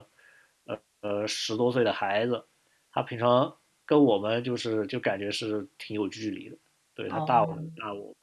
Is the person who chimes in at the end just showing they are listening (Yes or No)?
Yes